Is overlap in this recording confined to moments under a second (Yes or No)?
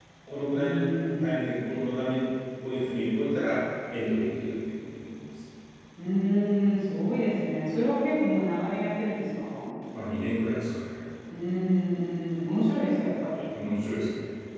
Yes